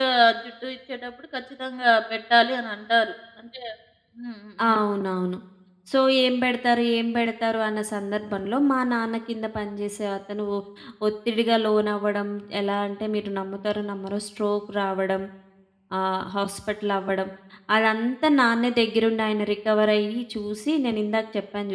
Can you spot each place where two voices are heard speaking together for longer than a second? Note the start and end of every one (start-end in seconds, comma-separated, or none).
none